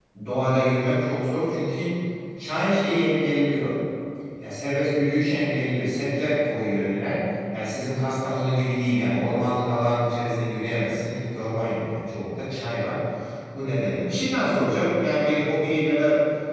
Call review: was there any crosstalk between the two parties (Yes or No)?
No